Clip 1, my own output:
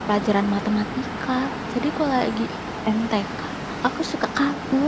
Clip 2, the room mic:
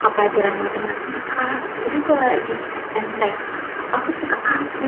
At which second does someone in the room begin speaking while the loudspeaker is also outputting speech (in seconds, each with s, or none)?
none